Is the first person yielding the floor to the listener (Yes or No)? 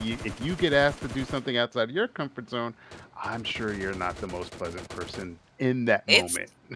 Yes